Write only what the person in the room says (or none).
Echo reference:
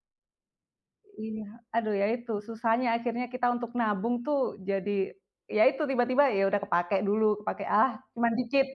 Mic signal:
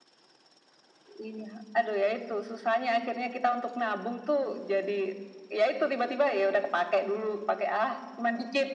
none